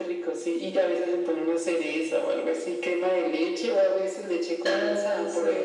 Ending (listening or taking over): taking over